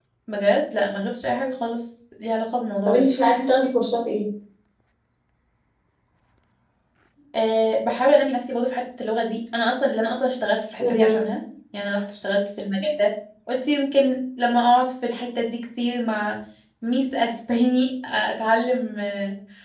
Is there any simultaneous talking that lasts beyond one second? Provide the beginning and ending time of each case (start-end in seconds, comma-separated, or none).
none